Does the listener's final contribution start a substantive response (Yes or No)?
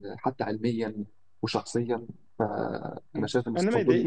Yes